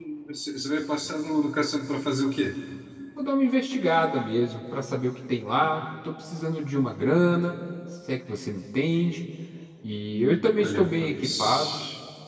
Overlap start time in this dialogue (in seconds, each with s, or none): 10.6 s